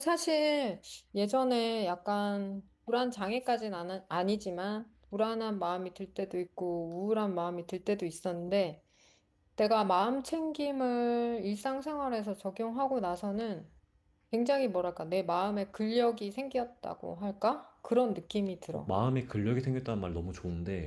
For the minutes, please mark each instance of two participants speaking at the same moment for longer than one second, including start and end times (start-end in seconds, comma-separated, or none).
none